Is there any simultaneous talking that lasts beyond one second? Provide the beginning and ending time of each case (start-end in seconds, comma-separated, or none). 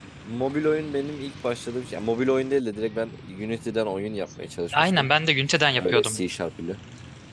none